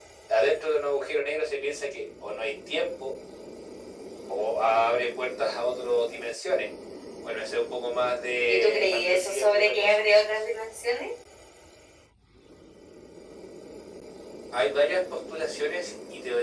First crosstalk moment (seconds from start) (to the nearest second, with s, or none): 8 s